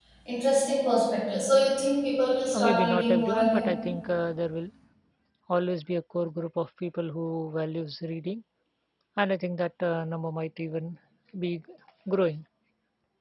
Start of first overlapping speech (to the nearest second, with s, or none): 3 s